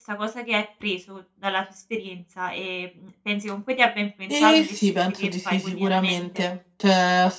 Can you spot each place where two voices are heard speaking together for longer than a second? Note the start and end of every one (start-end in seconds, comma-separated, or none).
4.3-6.4